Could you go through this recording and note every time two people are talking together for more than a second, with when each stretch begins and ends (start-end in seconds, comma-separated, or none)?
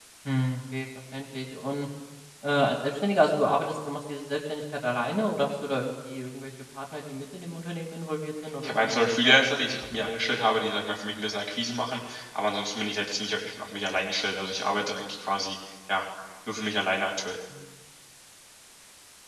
8.6-10.1